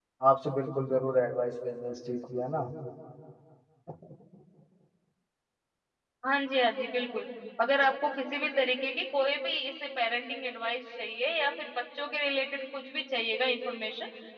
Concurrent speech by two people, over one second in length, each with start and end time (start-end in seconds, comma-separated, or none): none